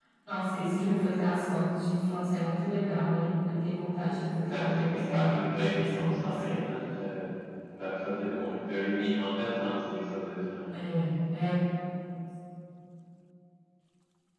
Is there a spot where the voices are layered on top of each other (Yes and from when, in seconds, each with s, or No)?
Yes, from 4.5 s